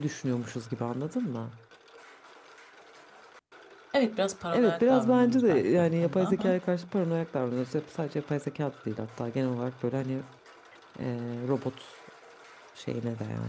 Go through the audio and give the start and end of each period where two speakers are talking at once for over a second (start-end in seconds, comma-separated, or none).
4.5-6.6